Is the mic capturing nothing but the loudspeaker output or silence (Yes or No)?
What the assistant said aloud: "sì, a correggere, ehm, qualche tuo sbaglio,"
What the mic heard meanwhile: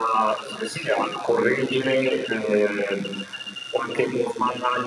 Yes